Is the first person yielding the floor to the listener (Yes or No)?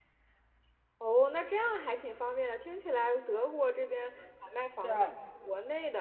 No